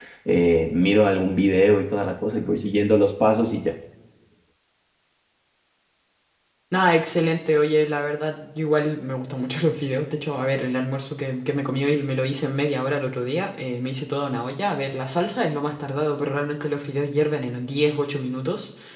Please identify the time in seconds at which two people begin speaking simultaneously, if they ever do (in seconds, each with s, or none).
none